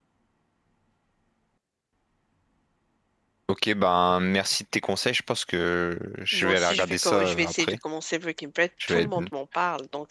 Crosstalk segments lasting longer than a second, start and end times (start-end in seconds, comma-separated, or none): 6.3-7.8